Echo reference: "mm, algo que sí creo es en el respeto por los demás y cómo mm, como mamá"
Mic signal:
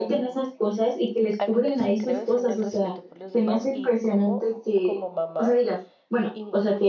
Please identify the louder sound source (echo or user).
user